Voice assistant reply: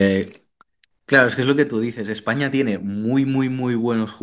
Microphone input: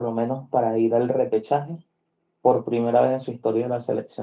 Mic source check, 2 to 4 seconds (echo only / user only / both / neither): user only